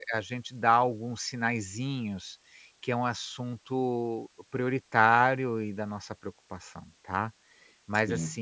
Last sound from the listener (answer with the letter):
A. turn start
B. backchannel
B